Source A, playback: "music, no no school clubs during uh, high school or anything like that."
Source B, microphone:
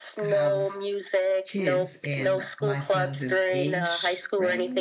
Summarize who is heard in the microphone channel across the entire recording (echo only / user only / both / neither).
both